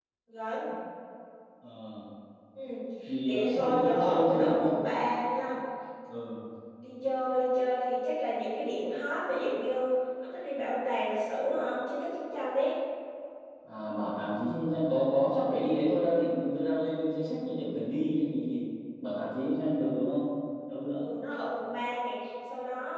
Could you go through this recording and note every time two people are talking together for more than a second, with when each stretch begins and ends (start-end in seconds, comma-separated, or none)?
3.2-4.7